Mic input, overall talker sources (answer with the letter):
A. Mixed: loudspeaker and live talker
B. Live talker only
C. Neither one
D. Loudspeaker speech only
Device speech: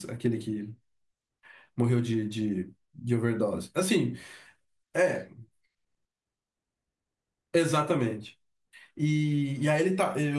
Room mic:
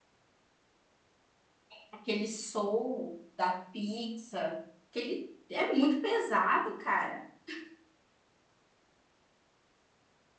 B